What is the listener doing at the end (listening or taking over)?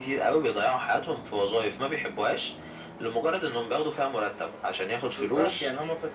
taking over